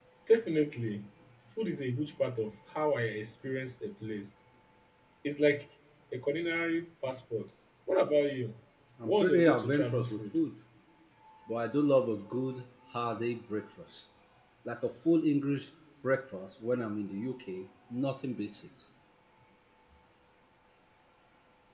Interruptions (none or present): present